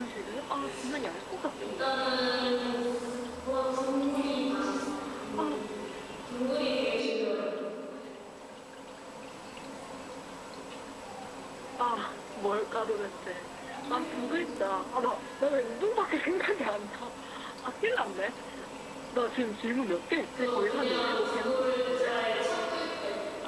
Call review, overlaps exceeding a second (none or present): present